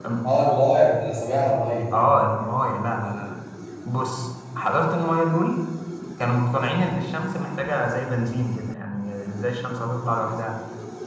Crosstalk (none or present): none